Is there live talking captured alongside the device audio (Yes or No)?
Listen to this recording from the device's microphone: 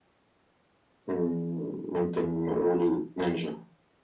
No